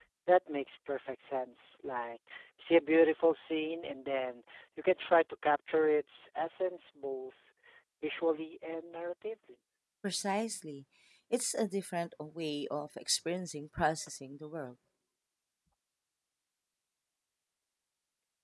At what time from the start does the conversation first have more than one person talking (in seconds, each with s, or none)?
none